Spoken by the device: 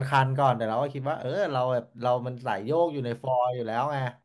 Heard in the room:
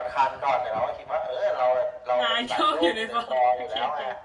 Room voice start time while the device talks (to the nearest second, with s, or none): 2 s